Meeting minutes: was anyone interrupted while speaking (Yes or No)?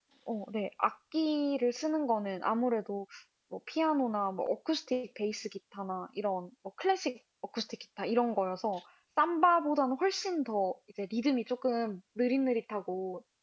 No